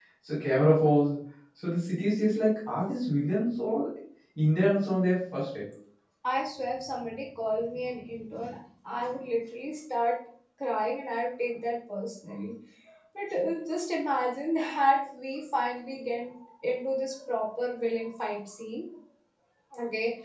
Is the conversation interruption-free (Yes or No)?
Yes